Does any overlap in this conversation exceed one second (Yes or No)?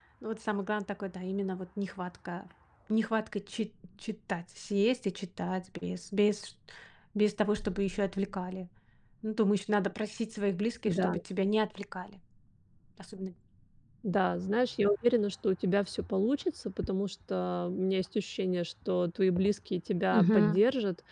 No